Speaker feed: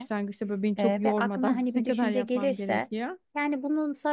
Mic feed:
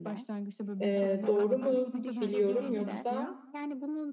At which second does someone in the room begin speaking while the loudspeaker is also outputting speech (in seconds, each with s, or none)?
0.8 s